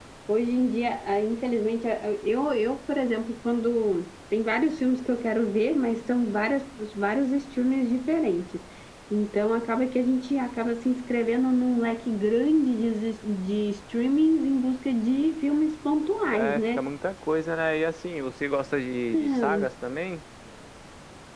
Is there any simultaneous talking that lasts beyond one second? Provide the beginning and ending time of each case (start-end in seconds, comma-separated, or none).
none